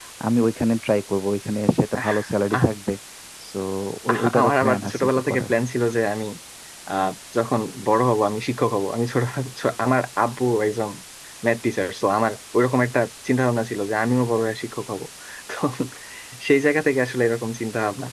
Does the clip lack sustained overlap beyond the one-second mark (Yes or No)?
No